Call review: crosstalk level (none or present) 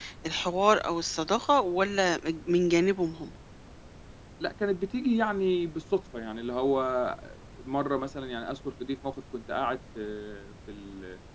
none